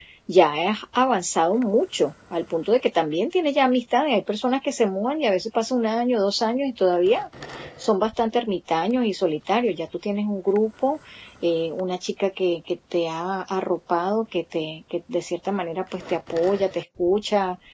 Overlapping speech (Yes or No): No